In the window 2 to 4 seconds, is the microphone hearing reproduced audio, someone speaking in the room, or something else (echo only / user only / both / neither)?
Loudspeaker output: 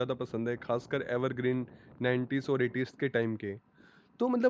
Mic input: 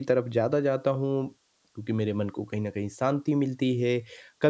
user only